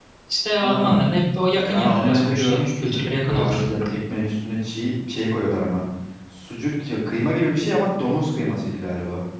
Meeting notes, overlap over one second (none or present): present